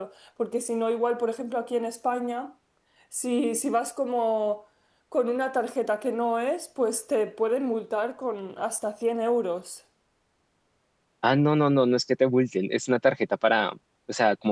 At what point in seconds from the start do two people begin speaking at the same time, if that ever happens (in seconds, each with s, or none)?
none